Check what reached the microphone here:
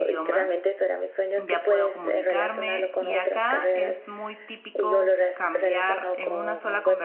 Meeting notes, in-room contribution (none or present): present